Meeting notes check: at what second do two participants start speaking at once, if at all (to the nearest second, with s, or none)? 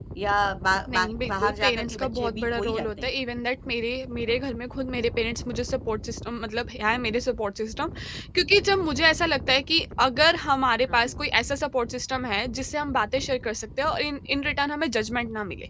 1 s